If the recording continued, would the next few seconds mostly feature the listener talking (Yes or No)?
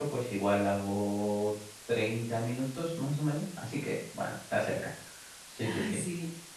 Yes